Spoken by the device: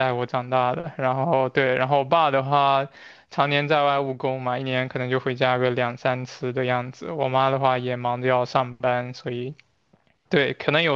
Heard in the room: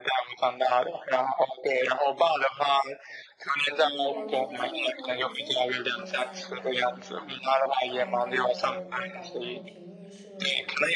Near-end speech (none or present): present